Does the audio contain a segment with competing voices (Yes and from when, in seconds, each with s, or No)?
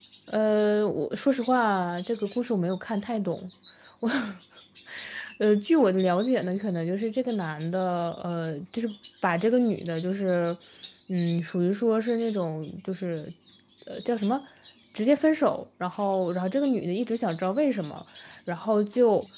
No